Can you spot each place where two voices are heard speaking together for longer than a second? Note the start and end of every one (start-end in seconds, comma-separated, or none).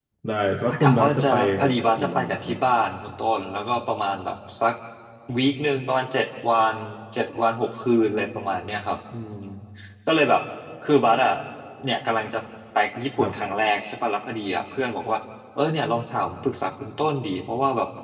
0.7-2.5